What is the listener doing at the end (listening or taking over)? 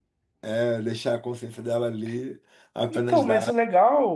taking over